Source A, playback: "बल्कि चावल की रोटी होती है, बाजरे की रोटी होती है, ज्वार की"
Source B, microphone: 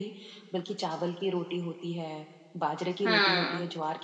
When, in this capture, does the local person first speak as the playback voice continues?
3.0 s

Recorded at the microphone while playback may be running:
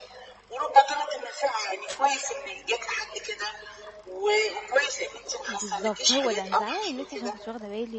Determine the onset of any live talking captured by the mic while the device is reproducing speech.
5.5 s

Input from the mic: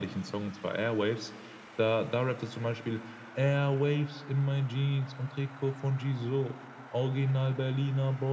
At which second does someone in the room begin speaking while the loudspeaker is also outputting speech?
none

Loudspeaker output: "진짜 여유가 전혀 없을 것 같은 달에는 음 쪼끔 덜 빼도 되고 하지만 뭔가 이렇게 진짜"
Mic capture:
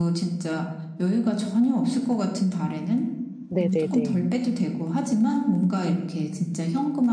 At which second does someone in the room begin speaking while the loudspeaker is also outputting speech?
3.5 s

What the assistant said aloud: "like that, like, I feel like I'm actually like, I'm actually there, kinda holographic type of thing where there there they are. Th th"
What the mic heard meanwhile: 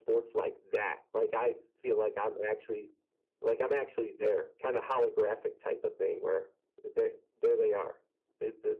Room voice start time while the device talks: none

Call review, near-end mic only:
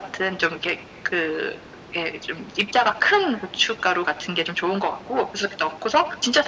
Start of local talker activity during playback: none

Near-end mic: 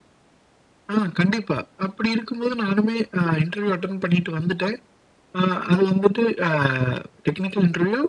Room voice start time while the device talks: none

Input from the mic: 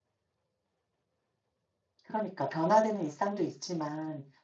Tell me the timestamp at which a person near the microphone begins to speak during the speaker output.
2.0 s

